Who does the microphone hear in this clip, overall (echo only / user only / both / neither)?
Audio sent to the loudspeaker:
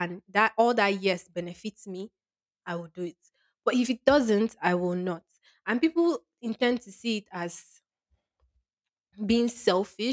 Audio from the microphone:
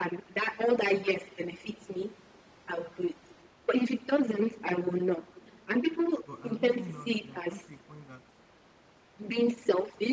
both